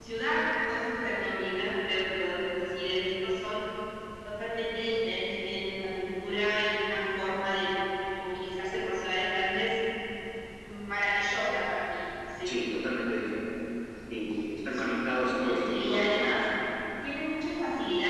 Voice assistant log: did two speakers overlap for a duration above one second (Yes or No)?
Yes